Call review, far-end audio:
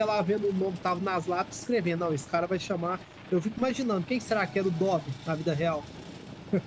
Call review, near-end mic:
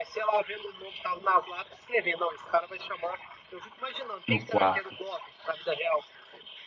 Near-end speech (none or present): present